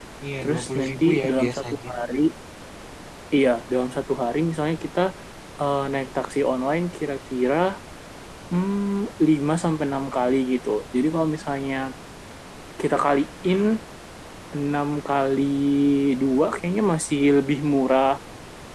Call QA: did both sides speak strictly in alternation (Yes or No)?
No